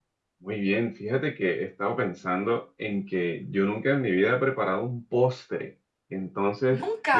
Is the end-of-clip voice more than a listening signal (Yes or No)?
No